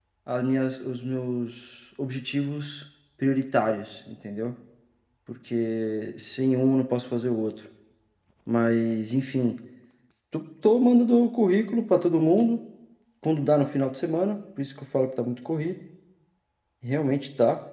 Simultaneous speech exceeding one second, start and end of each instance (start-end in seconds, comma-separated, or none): none